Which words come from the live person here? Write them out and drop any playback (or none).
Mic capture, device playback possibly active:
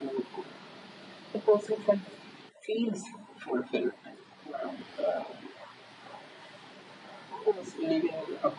none